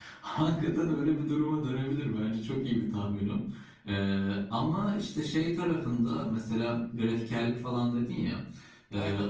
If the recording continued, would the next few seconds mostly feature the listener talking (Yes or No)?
No